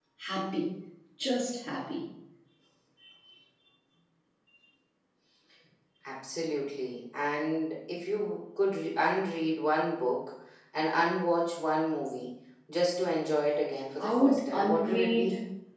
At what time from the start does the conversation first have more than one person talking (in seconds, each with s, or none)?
14.0 s